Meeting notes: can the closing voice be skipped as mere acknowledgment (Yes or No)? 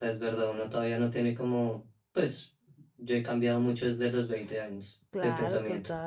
No